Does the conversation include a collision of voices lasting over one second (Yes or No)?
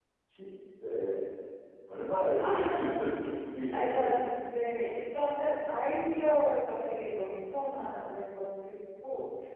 No